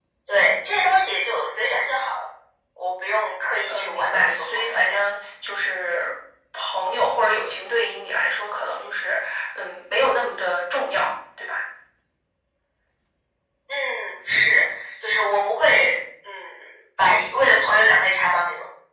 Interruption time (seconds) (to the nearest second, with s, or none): 4 s